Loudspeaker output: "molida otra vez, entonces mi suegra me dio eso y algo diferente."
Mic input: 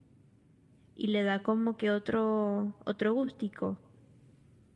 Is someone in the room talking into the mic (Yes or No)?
Yes